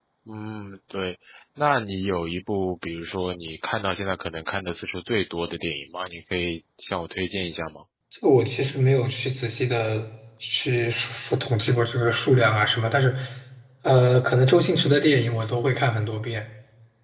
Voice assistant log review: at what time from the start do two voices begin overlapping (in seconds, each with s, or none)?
none